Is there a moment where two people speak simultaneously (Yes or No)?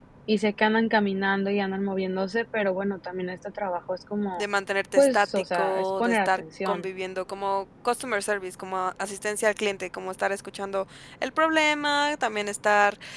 Yes